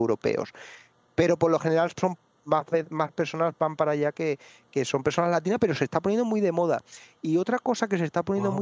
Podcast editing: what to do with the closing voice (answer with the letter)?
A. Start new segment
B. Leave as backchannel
B